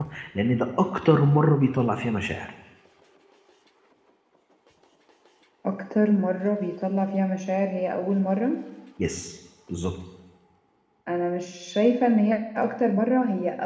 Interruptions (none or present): none